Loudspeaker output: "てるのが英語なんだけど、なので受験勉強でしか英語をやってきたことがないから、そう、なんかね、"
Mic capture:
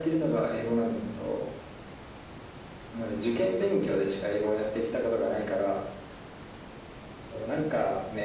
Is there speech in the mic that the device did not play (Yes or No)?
No